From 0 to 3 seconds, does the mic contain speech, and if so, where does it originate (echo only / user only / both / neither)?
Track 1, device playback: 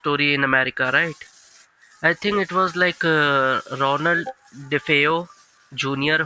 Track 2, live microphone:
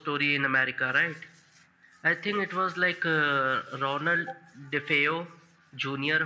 echo only